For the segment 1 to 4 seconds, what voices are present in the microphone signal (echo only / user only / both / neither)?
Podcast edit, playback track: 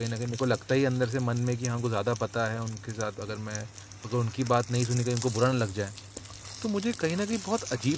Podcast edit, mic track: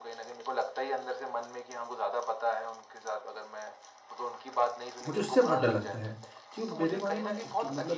echo only